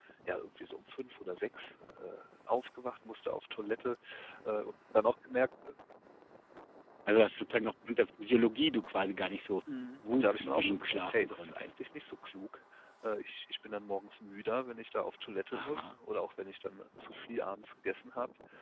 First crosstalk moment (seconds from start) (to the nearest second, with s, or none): 10 s